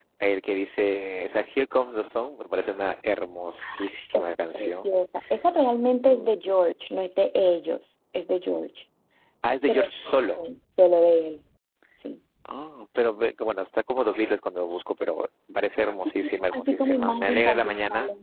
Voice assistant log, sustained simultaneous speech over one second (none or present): present